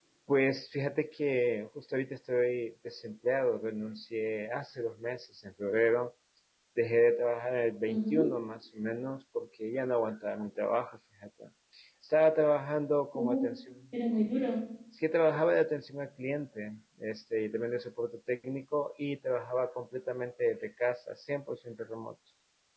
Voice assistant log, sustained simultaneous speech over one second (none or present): none